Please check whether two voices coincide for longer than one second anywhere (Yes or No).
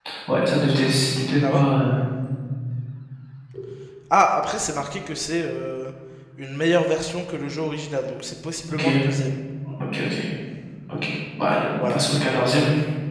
No